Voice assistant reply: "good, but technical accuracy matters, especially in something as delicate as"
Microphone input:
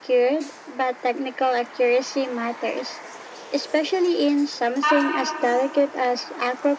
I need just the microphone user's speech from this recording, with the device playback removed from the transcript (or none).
have to use